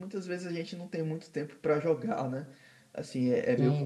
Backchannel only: Yes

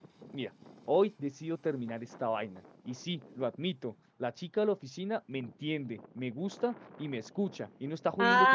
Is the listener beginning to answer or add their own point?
Yes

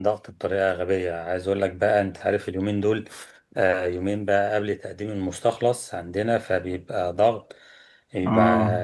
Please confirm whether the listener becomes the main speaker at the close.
No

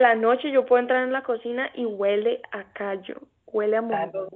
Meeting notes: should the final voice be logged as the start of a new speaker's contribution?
Yes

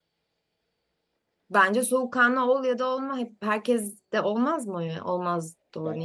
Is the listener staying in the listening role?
No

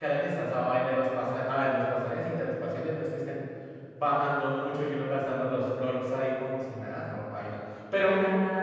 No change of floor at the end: Yes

